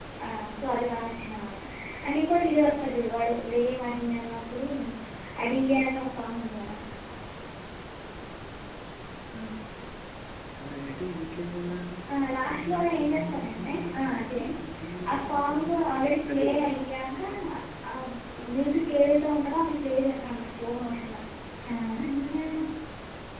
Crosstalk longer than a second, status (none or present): present